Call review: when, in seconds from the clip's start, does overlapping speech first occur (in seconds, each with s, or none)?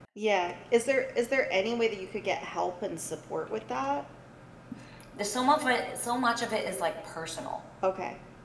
none